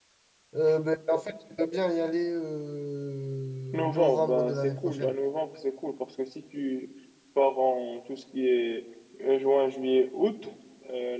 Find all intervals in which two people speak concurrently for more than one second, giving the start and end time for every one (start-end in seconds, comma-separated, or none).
3.7-5.2